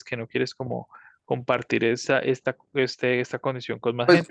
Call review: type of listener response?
taking over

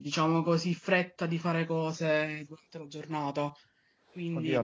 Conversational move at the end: taking over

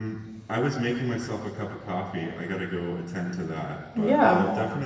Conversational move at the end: listening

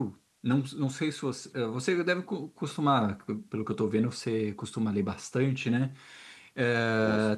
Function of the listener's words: listening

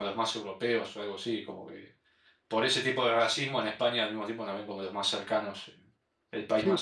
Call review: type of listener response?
taking over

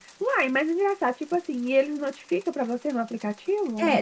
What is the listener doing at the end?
taking over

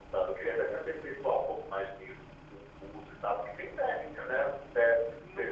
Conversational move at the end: listening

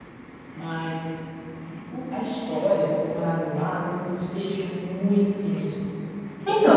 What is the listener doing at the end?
taking over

